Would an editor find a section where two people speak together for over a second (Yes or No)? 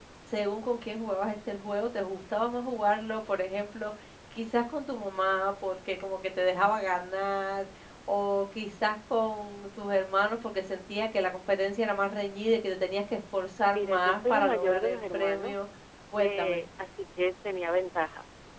Yes